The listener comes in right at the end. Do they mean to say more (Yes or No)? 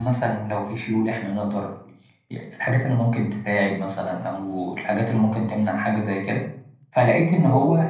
No